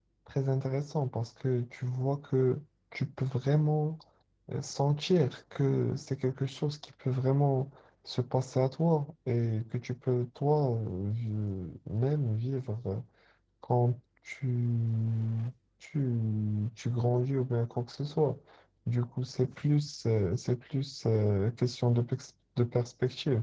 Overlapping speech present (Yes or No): No